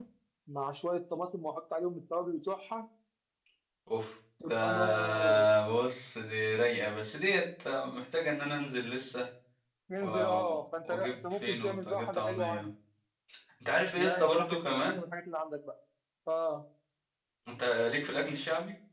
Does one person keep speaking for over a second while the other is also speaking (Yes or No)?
Yes